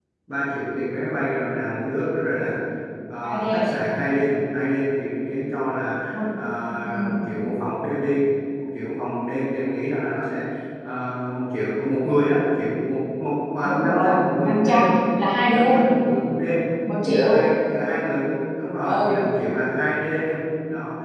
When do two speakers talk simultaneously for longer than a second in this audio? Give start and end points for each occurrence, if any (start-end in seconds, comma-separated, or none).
13.6-14.9